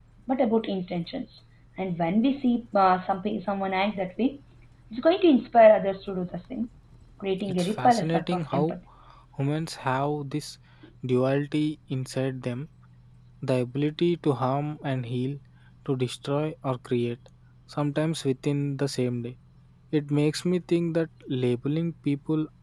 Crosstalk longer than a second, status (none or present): present